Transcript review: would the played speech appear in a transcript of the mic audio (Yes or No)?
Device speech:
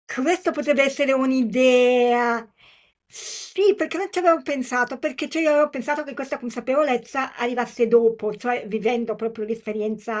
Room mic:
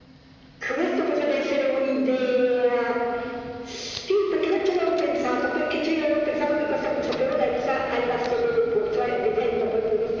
Yes